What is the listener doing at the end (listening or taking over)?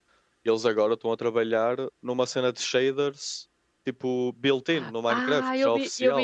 taking over